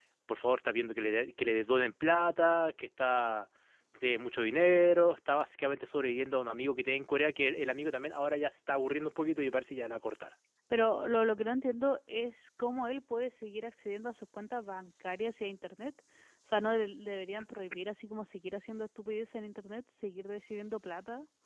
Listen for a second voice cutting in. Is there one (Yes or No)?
No